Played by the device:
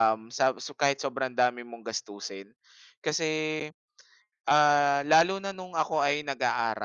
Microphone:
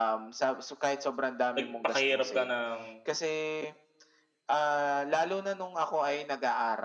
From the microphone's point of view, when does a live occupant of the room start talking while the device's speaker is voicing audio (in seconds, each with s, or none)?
1.6 s